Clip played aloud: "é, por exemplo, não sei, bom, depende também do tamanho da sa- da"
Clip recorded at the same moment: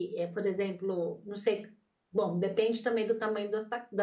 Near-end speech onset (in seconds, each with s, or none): none